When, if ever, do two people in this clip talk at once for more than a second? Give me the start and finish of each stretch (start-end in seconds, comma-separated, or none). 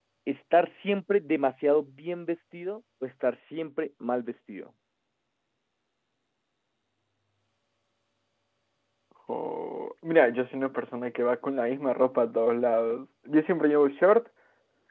none